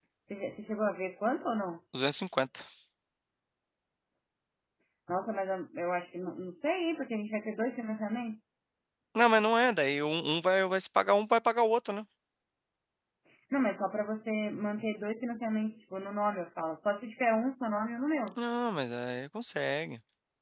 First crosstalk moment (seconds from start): none

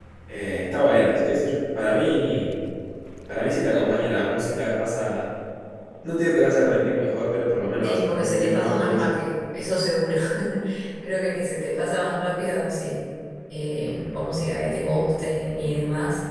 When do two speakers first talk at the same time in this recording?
7.8 s

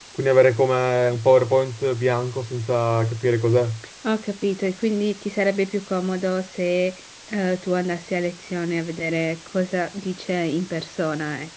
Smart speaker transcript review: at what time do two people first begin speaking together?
none

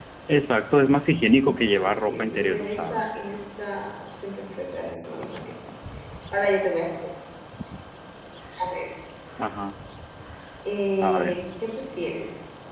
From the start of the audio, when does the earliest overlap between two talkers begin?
1.4 s

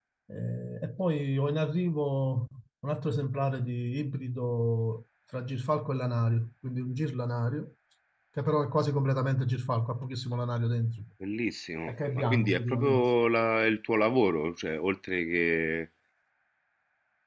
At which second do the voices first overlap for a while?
11.9 s

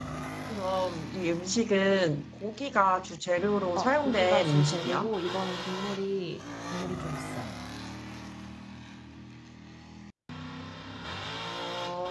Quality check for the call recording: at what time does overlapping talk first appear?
3.8 s

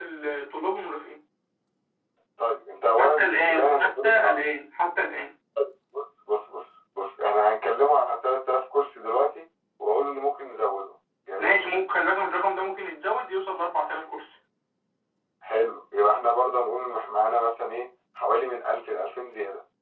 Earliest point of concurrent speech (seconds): 3.0 s

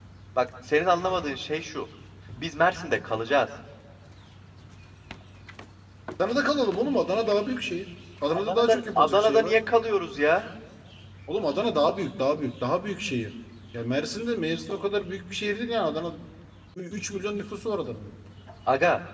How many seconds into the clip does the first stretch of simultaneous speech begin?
8.3 s

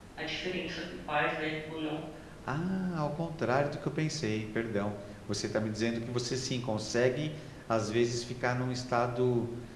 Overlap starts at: none

